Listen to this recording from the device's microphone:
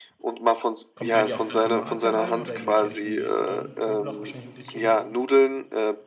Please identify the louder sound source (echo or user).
echo